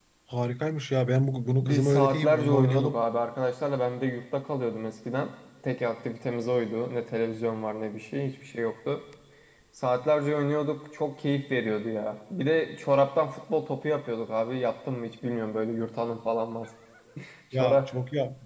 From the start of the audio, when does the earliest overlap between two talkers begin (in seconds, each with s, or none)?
1.6 s